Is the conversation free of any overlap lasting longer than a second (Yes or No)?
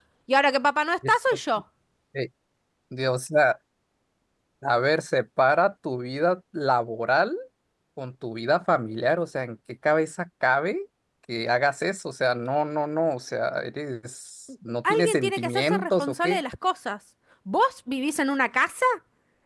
No